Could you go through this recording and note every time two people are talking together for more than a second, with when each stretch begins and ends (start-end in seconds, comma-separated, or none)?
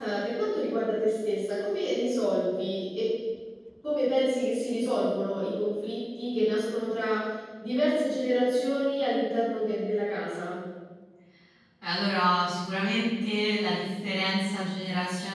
none